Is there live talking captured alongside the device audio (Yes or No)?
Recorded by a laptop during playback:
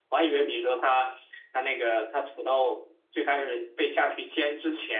No